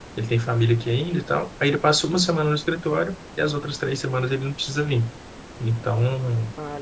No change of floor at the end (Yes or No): Yes